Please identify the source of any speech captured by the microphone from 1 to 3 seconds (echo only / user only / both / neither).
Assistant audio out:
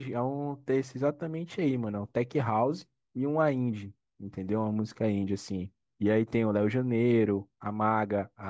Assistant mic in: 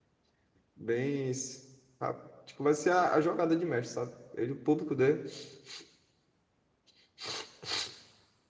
user only